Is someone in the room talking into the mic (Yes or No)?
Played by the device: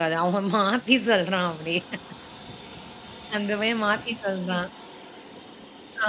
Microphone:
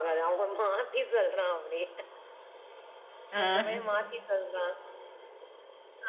Yes